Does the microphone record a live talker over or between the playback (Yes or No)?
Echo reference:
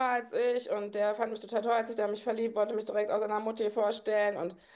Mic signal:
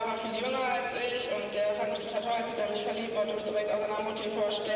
No